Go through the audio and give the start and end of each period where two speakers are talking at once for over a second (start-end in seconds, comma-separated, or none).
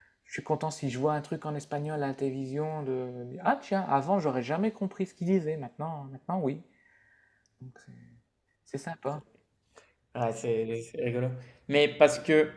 none